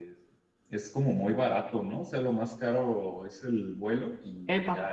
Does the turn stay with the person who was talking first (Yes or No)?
Yes